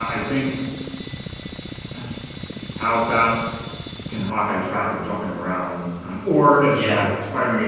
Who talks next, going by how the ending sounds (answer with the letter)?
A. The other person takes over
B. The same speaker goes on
B